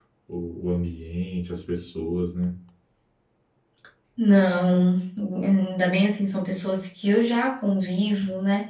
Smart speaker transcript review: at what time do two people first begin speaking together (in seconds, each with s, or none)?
none